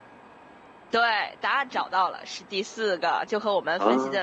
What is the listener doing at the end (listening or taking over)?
listening